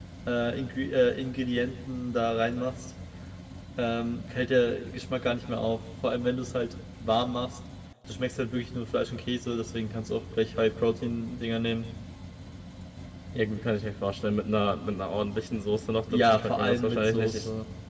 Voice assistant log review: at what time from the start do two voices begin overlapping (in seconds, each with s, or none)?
16.1 s